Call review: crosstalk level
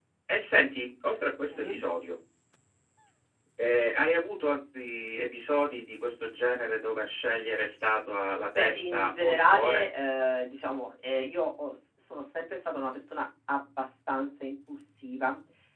present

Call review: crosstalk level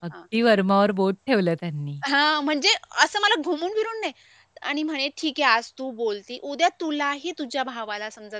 none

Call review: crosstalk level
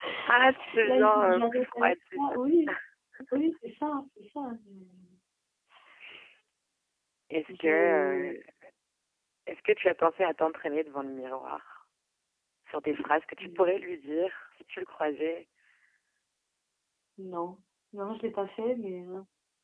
present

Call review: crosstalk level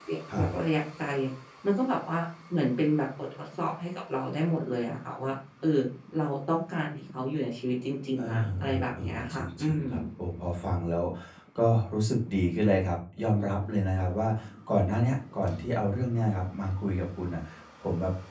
present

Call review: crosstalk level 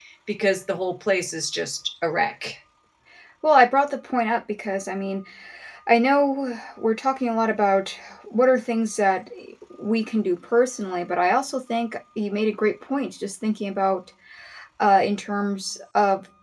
none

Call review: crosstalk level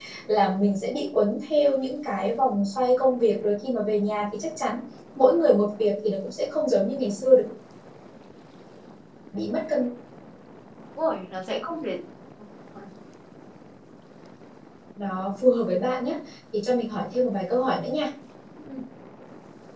none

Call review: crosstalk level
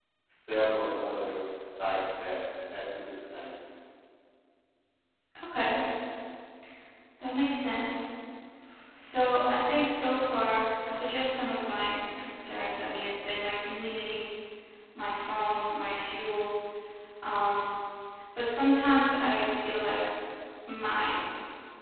none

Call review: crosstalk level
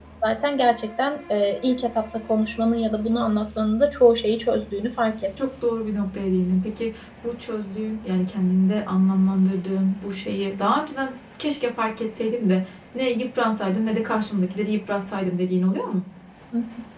none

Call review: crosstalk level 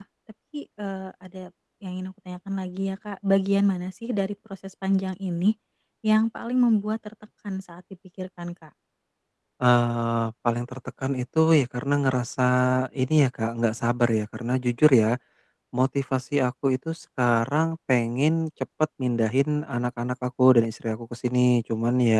none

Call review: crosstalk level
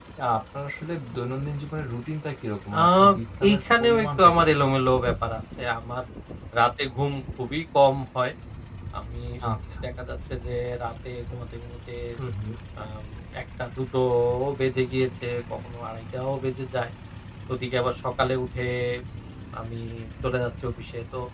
present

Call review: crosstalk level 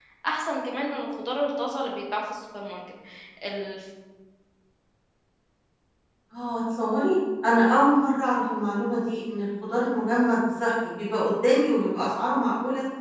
none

